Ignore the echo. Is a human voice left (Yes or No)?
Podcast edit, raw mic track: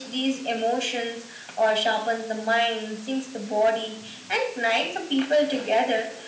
No